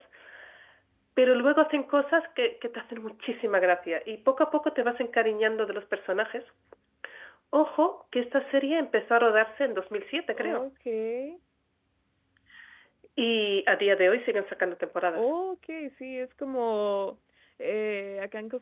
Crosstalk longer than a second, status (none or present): none